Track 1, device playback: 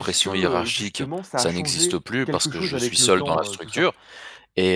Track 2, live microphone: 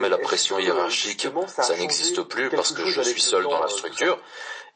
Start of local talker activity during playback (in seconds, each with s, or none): none